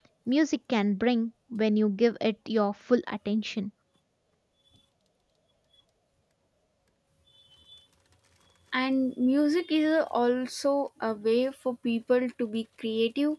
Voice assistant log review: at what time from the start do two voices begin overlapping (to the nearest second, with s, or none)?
none